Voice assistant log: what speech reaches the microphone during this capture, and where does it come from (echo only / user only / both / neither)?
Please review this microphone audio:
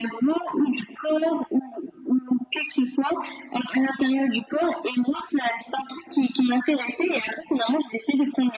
echo only